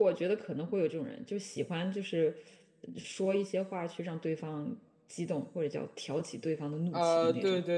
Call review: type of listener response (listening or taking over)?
taking over